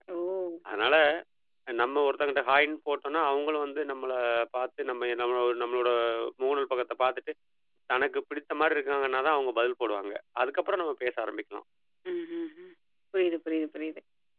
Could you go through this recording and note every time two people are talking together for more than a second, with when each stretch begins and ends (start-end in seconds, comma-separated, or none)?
none